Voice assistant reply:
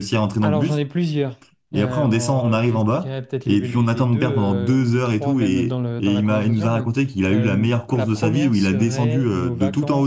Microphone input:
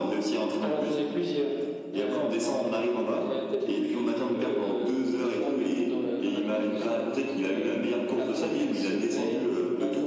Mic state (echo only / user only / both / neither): echo only